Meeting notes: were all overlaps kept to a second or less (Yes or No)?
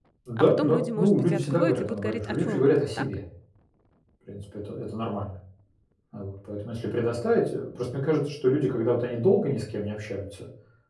No